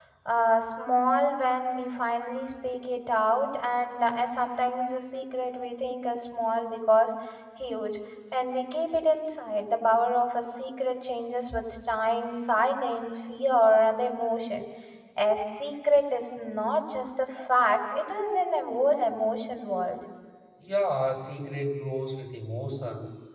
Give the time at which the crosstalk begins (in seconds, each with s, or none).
none